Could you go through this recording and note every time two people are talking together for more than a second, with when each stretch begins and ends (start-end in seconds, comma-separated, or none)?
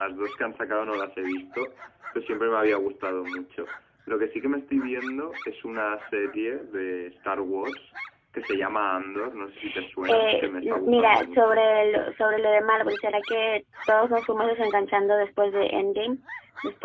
10.1-11.6